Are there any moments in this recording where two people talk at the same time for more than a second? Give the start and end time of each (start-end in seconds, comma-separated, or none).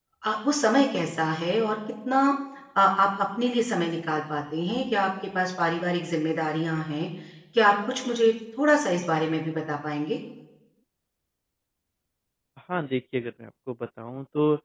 none